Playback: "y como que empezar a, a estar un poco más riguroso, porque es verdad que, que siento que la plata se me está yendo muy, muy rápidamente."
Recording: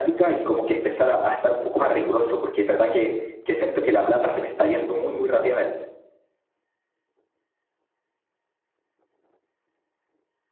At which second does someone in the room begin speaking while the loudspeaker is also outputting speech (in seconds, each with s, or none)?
none